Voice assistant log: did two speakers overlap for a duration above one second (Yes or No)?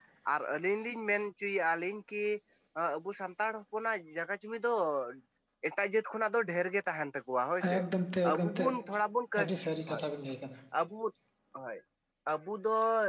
No